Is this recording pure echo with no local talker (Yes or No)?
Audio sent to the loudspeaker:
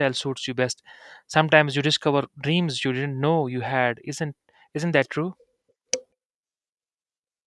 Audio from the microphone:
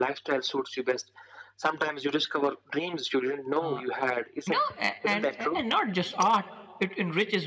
No